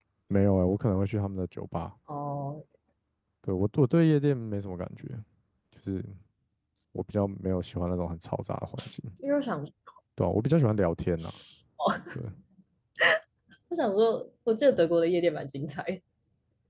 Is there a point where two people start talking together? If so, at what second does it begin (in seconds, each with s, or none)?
none